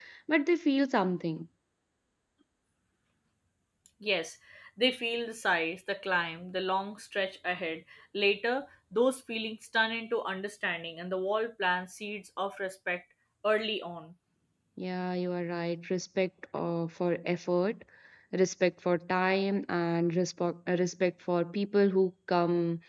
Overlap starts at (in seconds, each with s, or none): none